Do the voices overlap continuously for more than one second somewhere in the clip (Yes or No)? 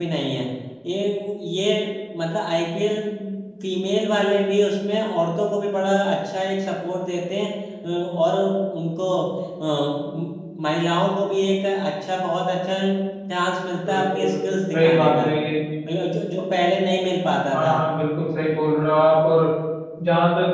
No